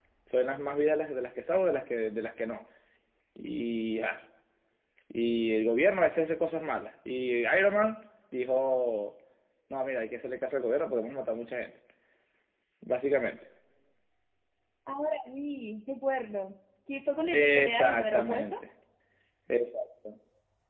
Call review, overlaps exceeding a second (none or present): present